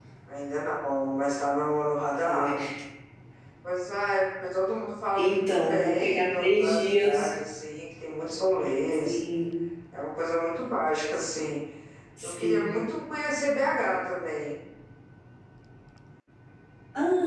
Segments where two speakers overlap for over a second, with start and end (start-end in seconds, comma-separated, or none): 5.2-7.3